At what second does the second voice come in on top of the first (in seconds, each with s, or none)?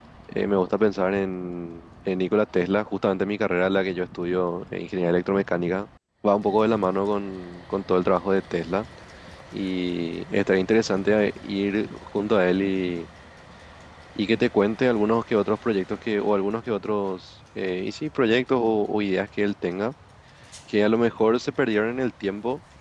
none